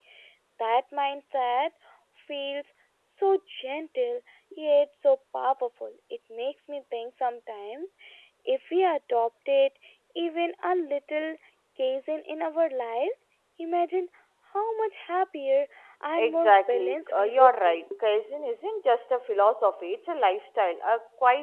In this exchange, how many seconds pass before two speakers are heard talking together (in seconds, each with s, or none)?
16.2 s